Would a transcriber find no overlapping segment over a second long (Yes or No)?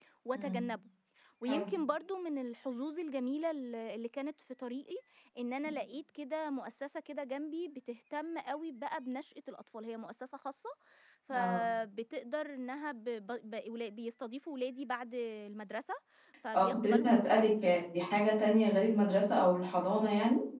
No